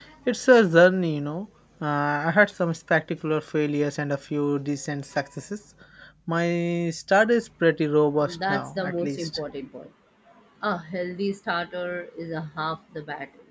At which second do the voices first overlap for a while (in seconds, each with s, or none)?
8.2 s